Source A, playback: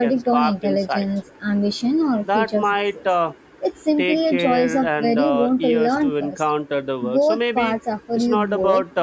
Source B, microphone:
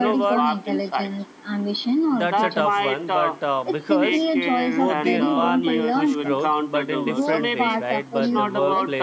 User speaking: Yes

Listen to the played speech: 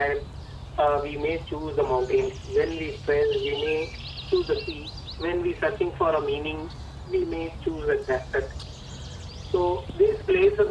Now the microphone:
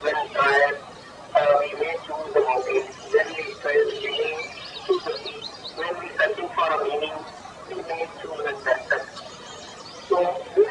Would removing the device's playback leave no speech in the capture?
Yes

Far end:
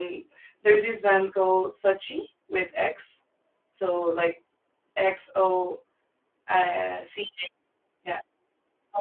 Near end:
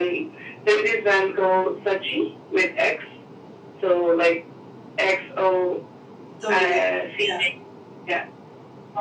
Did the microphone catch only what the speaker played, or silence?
No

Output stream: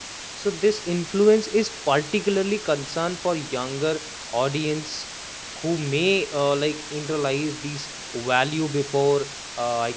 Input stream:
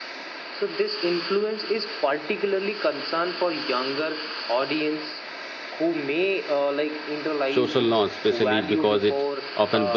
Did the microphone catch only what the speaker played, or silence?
No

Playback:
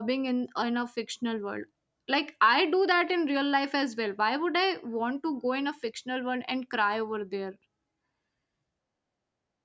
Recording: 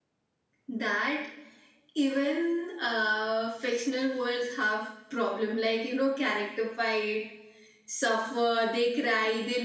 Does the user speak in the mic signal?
Yes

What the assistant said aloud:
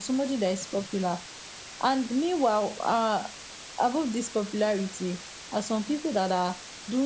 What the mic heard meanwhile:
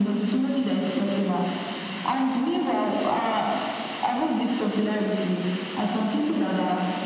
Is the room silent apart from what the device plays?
Yes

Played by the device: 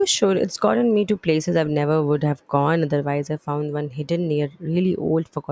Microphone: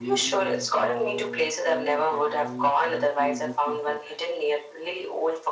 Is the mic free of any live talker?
No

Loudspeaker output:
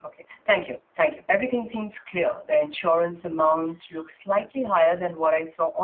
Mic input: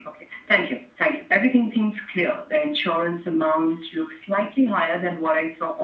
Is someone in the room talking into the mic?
No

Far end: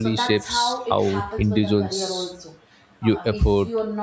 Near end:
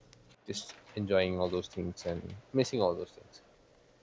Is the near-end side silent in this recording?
No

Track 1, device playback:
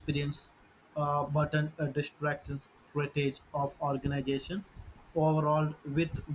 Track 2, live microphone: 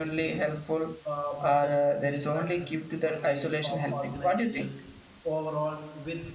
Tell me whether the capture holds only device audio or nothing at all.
No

